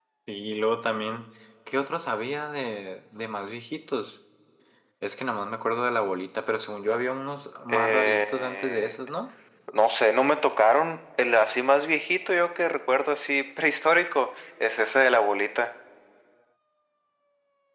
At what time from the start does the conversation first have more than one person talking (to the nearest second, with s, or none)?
8 s